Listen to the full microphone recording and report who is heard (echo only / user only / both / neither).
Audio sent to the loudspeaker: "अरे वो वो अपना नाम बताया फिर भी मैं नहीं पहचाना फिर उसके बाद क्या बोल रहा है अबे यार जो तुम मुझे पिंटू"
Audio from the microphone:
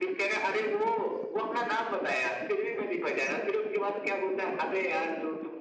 echo only